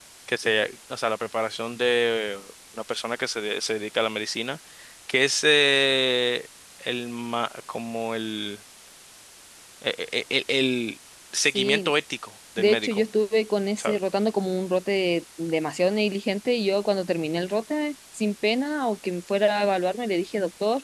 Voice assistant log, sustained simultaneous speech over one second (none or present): none